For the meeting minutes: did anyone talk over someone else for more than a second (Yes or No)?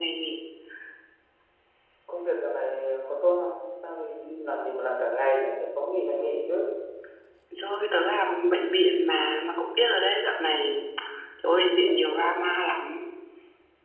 No